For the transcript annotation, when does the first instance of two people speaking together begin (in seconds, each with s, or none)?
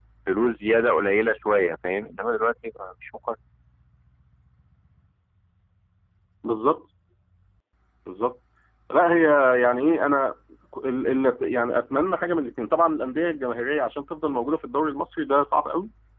none